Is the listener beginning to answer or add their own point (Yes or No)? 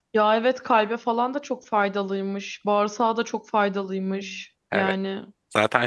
Yes